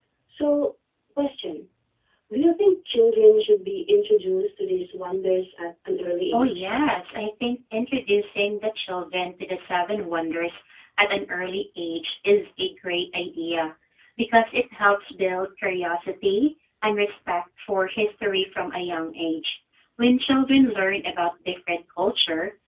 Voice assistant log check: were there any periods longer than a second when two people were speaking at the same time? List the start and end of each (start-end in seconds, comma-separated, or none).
none